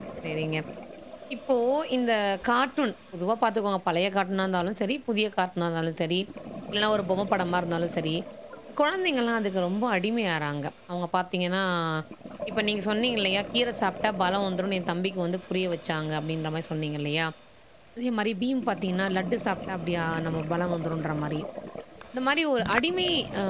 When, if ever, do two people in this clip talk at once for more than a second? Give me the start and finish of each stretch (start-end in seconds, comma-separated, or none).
none